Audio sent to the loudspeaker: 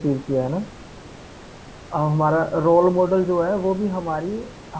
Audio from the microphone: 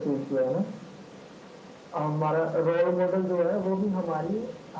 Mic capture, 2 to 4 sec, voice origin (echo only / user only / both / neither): echo only